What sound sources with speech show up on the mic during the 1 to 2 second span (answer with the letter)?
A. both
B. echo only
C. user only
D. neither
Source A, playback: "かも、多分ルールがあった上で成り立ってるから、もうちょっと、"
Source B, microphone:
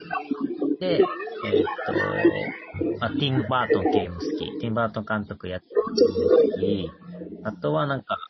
A